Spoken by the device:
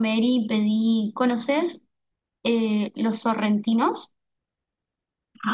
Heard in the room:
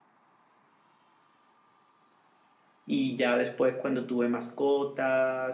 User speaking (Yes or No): Yes